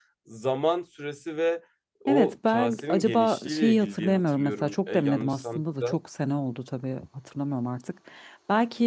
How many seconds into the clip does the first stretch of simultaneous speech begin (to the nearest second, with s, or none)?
2 s